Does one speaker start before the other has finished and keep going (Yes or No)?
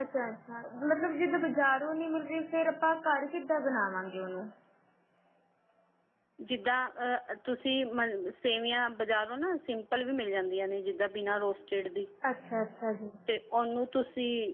No